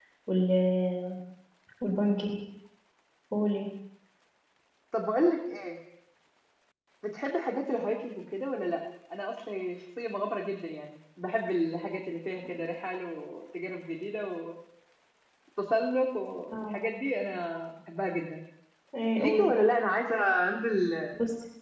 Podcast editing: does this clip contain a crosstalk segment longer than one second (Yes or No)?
No